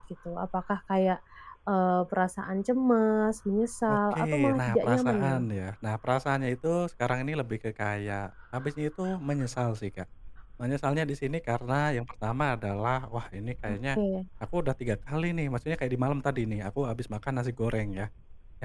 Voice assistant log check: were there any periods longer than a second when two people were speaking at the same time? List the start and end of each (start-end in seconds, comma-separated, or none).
3.9-5.4